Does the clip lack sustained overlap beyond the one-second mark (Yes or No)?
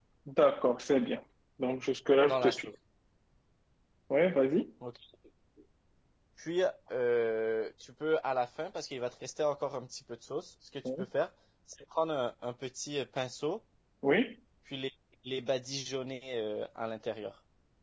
Yes